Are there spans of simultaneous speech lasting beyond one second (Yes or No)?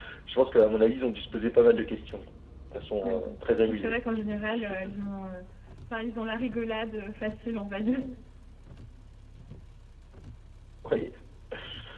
No